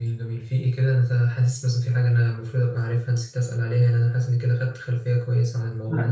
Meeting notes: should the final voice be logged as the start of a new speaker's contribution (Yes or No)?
Yes